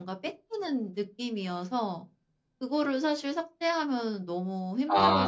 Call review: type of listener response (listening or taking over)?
taking over